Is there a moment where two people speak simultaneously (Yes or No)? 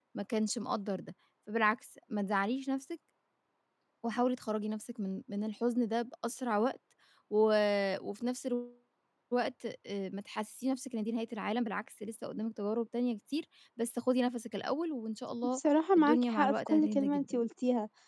Yes